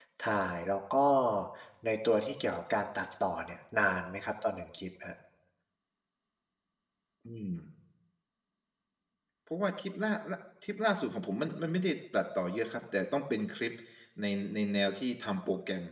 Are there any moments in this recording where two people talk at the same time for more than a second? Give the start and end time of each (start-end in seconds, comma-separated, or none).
none